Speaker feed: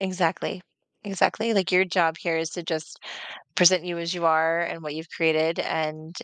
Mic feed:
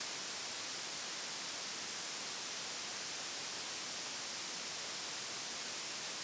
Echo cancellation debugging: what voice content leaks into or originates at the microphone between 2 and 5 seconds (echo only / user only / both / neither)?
neither